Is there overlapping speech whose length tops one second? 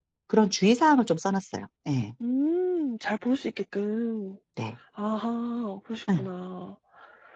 No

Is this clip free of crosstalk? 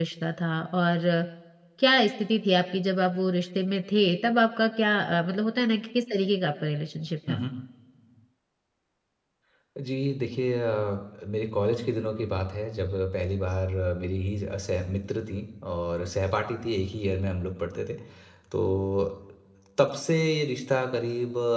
Yes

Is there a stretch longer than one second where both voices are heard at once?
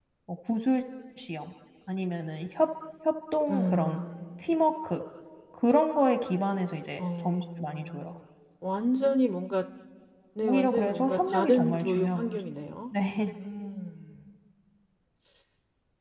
Yes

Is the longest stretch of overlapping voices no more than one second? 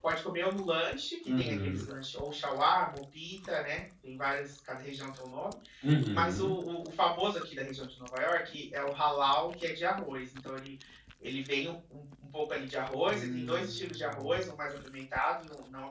No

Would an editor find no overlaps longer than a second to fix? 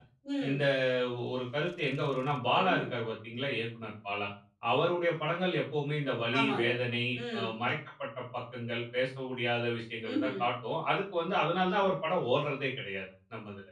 Yes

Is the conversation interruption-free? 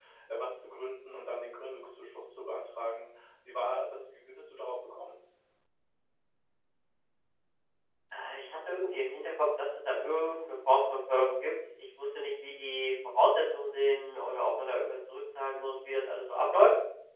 Yes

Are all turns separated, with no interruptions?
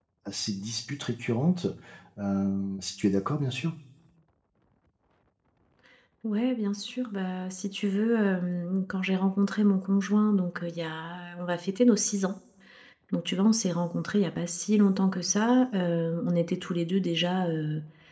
Yes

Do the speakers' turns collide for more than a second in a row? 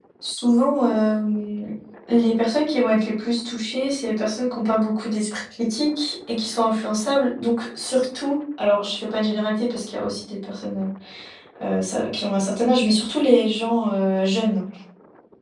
No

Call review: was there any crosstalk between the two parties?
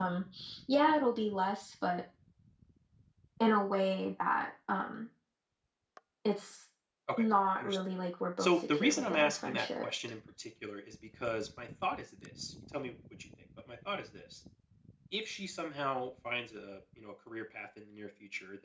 Yes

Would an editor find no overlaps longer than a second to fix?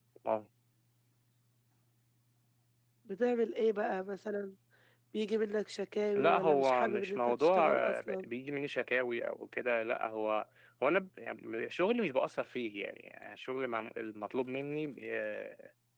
No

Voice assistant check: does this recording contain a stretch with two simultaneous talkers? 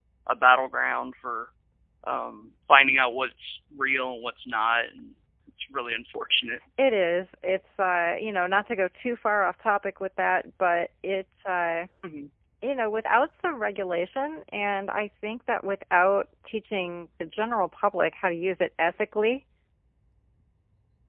No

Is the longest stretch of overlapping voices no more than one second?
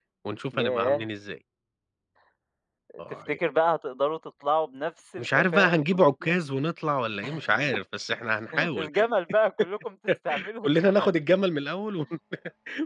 No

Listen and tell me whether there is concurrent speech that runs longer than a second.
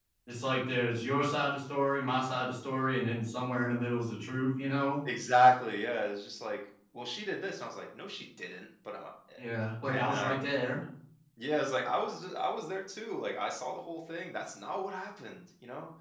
No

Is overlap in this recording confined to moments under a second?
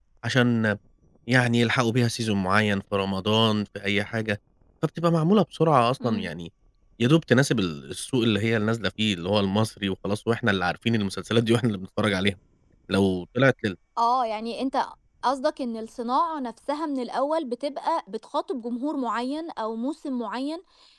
Yes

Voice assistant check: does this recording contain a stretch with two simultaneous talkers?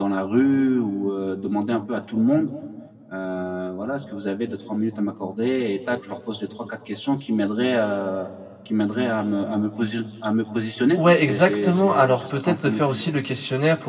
Yes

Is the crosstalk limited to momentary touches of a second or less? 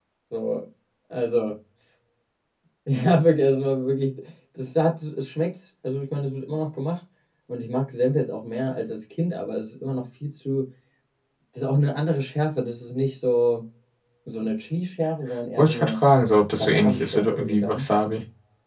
No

